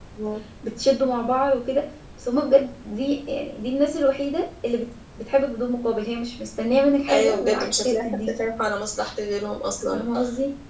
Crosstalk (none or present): present